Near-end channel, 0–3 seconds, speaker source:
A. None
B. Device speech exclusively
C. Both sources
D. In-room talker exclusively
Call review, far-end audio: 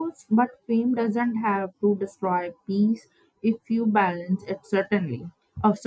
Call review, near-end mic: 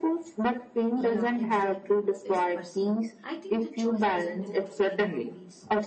C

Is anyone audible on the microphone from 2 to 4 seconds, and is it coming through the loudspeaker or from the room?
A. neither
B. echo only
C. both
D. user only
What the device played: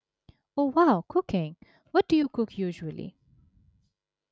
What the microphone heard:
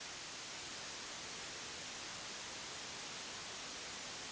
A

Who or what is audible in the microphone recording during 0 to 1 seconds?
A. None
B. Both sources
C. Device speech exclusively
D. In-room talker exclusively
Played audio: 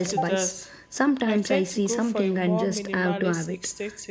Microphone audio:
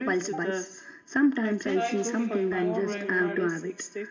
C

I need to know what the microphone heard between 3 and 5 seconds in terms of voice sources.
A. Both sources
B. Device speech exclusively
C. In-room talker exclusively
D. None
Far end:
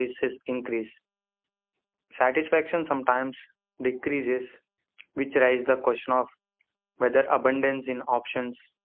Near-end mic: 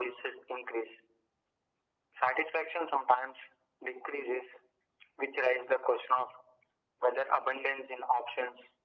B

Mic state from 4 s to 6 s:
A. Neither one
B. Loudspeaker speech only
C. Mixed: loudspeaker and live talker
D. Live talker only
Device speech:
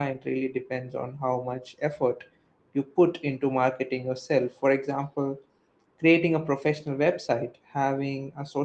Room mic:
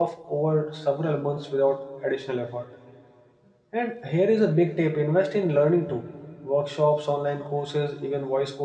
D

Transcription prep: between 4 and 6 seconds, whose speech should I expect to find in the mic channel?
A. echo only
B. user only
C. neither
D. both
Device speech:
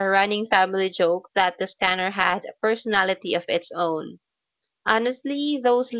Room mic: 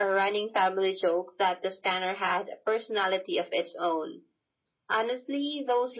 A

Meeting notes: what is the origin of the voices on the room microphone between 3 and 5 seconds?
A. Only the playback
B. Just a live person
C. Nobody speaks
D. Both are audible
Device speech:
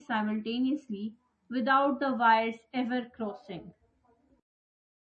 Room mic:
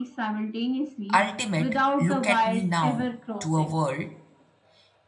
D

